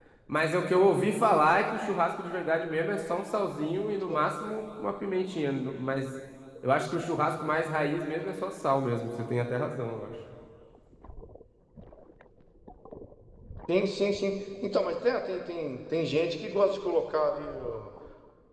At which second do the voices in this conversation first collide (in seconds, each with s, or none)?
none